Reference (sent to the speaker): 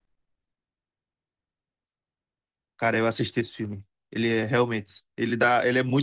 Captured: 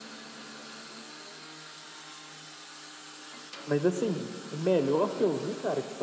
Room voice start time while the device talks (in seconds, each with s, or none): 3.6 s